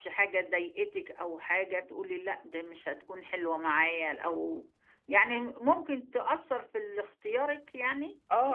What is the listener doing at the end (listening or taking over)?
taking over